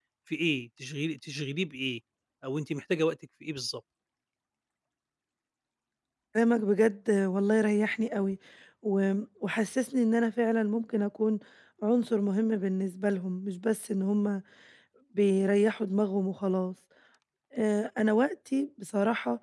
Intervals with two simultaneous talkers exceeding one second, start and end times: none

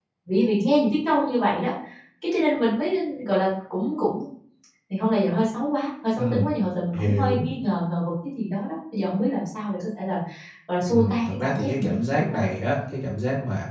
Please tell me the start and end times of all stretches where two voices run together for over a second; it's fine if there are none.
10.9-12.4

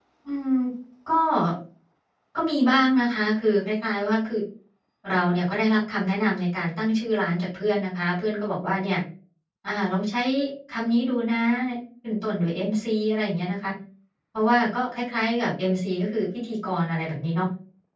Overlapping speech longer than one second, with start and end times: none

